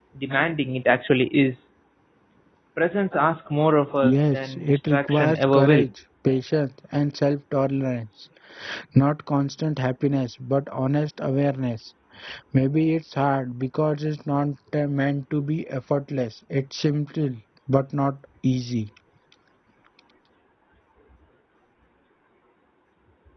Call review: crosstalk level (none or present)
present